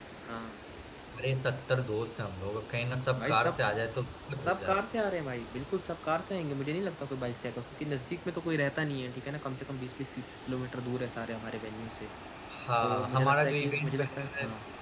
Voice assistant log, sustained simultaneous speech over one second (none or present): present